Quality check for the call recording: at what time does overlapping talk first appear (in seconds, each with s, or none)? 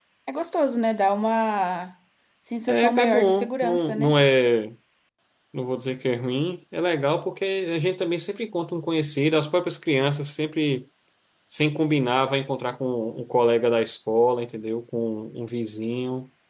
2.7 s